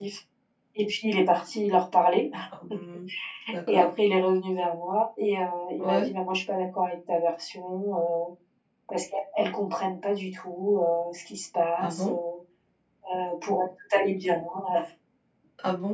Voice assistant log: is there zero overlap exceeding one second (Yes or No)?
Yes